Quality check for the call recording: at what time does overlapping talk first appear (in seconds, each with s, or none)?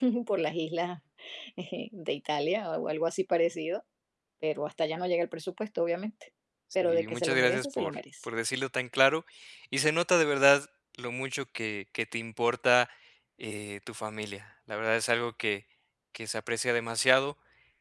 6.8 s